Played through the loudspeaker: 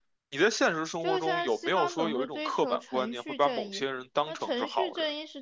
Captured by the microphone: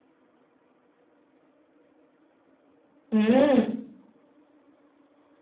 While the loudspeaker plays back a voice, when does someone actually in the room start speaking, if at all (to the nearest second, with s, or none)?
3 s